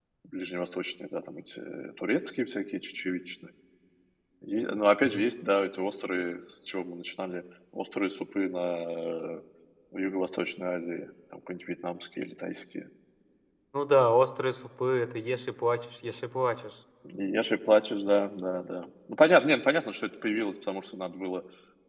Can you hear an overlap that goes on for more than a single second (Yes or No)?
No